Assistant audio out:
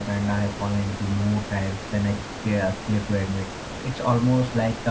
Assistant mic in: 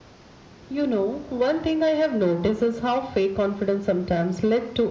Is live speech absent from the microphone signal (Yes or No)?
No